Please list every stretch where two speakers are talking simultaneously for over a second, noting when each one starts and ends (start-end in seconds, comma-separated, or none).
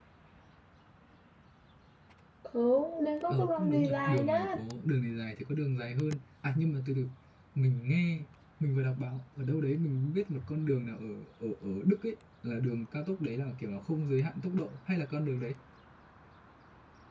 3.3-4.6